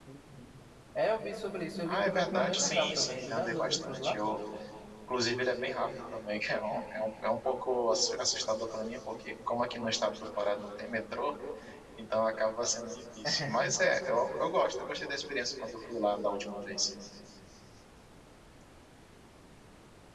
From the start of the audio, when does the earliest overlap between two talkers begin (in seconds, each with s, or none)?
1.8 s